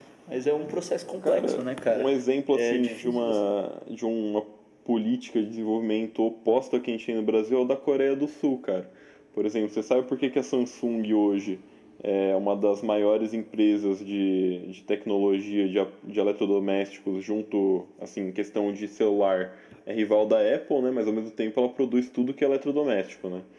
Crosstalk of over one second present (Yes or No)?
Yes